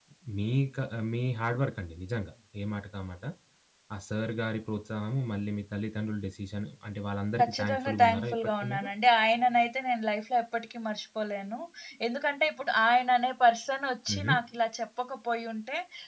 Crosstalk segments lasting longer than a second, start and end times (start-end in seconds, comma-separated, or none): 7.4-8.9